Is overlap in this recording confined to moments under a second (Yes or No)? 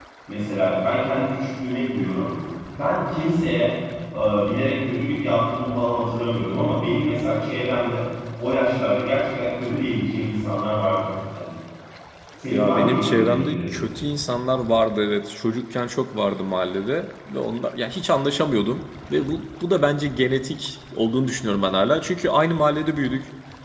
No